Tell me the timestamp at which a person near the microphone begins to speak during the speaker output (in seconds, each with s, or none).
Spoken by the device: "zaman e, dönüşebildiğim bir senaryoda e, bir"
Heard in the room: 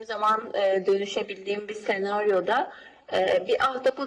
none